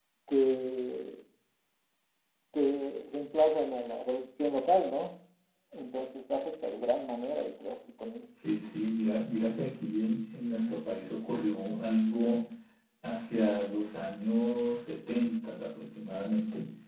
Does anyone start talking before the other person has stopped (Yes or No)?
No